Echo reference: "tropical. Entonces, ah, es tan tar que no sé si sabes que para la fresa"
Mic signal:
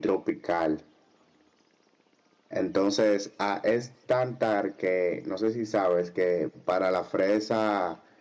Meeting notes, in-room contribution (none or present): none